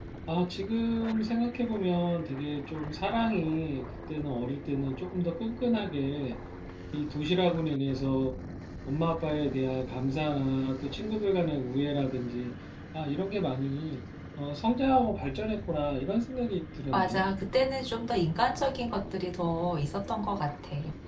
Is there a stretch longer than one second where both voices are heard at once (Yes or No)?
No